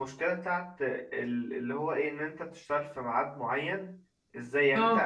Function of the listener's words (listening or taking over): listening